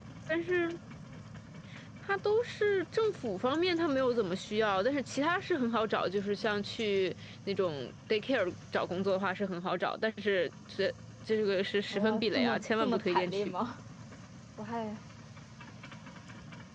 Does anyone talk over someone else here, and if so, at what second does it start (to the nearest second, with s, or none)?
12 s